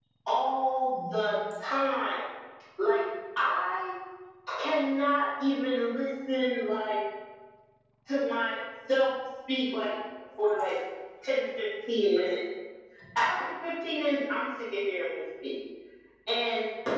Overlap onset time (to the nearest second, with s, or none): none